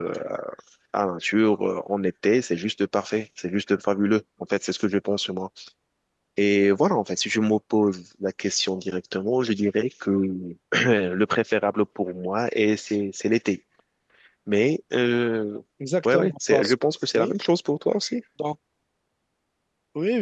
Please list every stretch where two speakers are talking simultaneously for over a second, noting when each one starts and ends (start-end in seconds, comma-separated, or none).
16.1-17.3